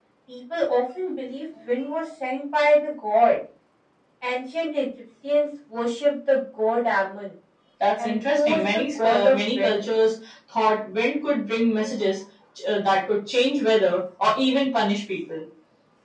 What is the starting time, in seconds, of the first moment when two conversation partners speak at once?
8 s

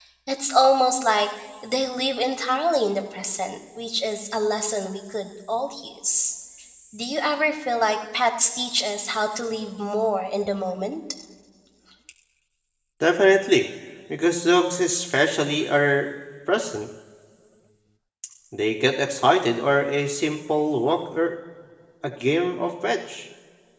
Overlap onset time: none

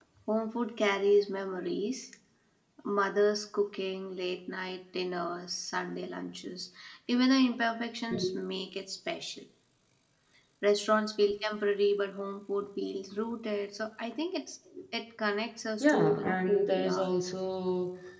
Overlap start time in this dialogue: 16 s

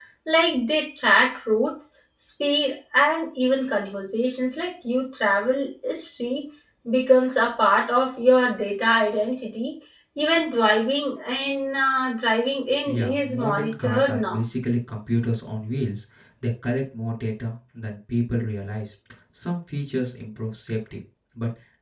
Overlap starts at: 13 s

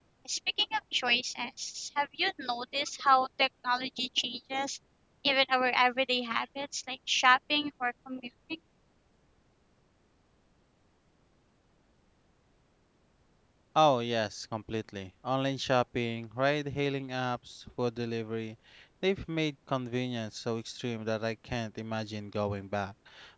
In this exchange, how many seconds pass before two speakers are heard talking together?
none

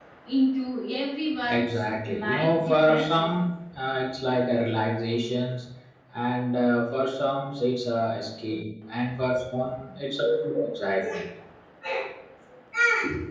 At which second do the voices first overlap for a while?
1 s

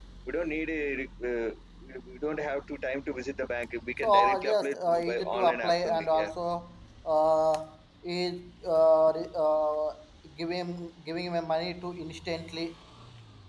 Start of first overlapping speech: 4 s

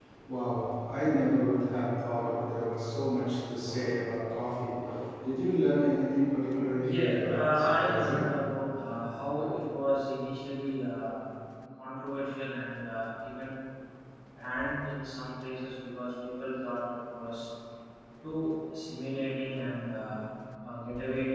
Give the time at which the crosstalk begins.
7 s

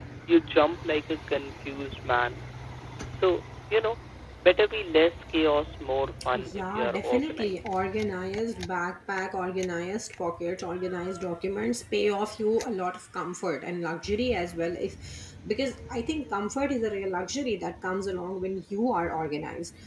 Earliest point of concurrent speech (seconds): 6 s

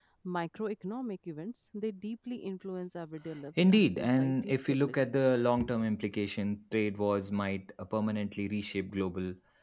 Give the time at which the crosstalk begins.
4 s

